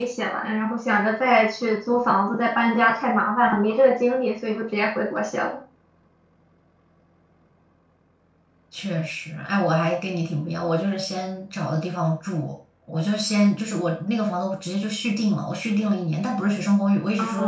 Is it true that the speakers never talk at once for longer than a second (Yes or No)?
Yes